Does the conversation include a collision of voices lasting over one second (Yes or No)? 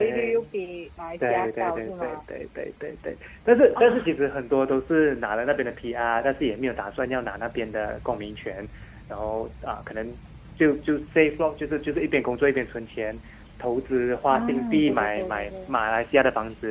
Yes